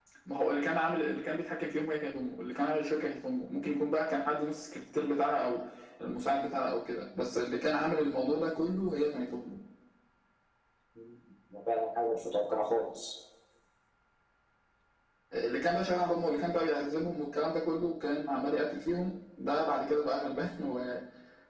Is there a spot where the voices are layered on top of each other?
No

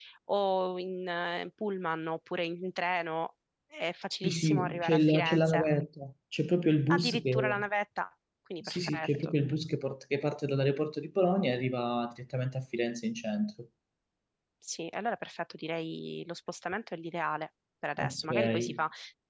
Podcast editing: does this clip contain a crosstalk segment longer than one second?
Yes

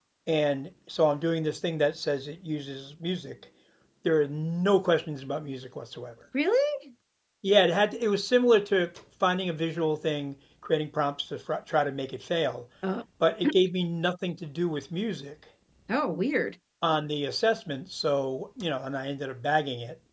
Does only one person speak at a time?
Yes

